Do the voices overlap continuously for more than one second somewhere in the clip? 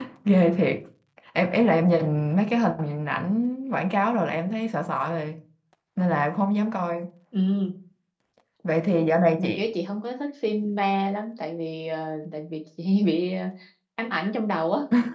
No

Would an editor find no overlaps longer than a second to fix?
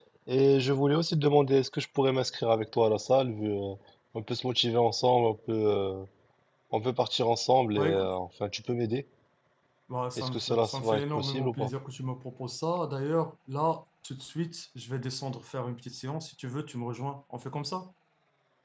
No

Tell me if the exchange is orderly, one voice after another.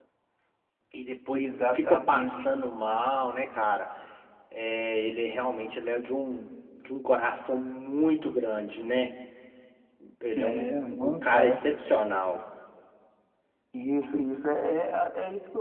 No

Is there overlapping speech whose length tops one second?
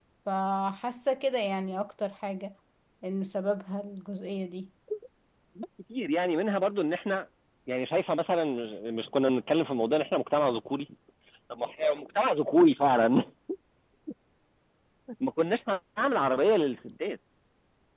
No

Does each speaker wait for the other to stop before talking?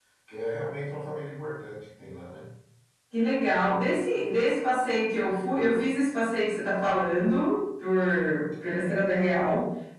Yes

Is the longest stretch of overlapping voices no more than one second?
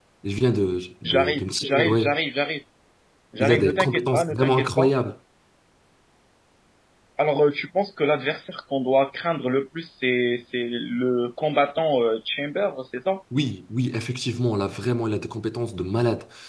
No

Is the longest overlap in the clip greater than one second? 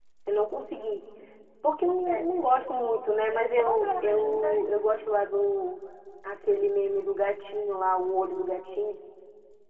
Yes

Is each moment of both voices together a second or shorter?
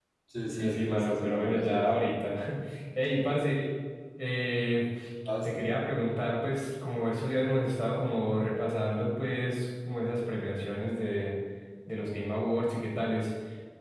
No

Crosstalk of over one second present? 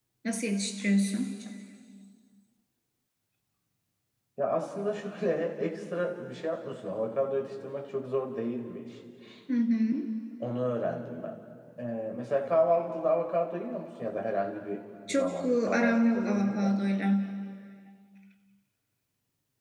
Yes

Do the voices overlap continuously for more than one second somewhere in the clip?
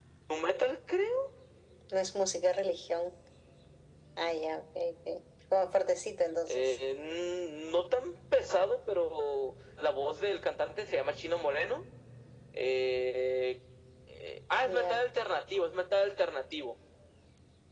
No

